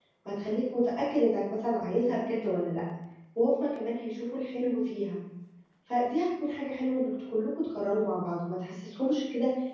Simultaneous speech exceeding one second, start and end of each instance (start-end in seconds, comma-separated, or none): none